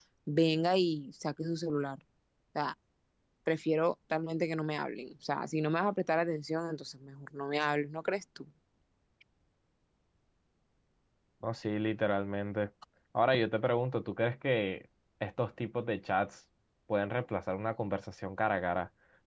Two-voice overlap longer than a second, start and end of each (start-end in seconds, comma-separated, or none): none